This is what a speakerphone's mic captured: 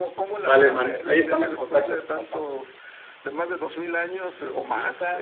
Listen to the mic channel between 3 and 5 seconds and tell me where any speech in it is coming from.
echo only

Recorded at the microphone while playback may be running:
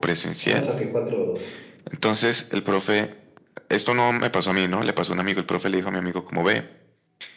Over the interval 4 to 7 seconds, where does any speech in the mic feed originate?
echo only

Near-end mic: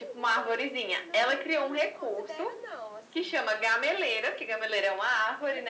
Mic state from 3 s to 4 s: both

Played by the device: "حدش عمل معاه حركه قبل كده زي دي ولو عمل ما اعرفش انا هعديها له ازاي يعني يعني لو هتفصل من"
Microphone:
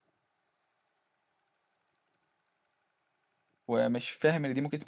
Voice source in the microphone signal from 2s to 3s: neither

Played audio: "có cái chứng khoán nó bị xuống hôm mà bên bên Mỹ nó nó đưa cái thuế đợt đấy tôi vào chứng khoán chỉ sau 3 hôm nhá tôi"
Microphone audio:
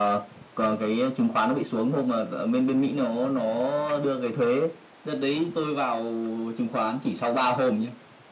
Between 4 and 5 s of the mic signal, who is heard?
echo only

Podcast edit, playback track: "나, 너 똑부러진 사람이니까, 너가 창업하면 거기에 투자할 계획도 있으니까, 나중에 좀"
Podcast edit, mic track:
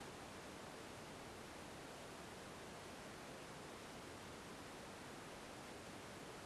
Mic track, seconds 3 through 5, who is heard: neither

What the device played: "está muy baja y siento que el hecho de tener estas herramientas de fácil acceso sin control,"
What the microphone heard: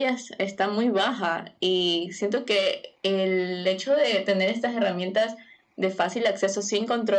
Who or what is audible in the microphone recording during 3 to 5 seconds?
echo only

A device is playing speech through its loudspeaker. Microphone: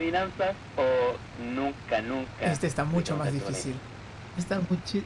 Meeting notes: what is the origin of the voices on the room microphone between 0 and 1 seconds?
echo only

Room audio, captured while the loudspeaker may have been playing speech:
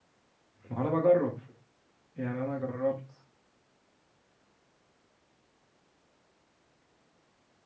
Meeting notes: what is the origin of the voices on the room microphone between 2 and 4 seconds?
user only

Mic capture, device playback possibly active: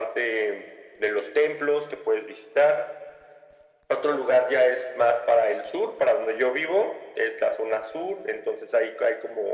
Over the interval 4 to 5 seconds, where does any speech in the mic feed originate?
echo only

